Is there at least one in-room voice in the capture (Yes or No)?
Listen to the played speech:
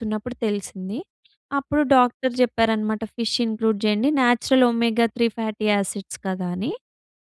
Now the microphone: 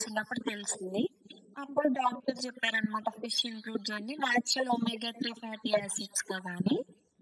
No